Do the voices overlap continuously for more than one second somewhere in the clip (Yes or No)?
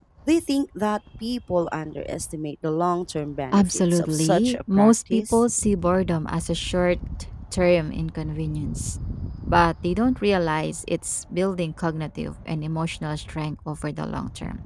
Yes